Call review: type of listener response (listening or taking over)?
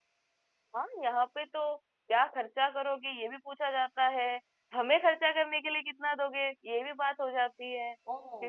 taking over